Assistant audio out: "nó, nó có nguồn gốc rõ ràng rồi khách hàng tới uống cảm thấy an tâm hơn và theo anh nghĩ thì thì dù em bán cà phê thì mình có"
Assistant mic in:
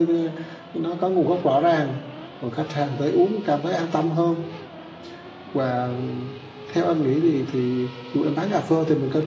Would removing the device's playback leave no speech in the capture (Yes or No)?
Yes